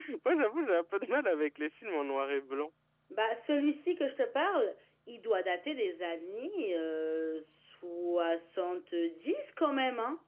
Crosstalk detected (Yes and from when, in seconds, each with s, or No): No